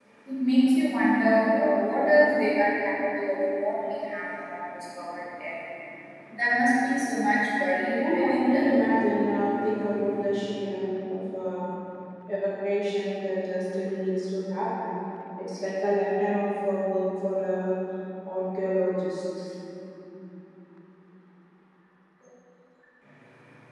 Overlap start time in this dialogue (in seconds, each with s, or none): 7.8 s